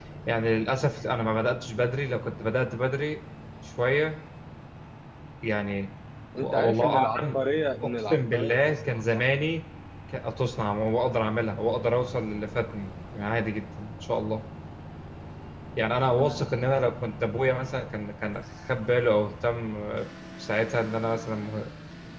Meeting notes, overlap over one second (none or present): present